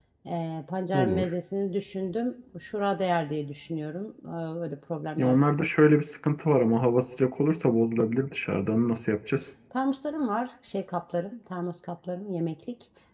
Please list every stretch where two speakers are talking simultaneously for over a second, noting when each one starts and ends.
none

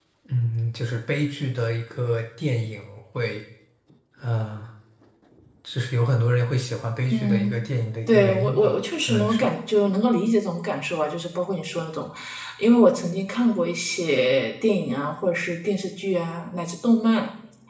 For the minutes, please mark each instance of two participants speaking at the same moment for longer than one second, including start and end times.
8.1-9.5

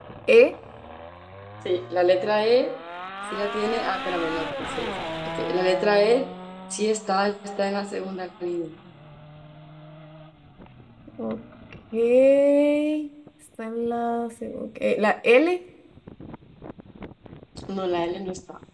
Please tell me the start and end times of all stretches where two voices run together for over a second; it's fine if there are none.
none

